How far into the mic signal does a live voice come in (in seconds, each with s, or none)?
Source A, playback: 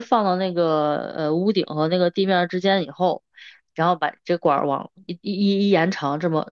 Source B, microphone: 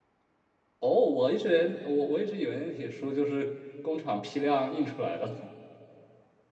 0.8 s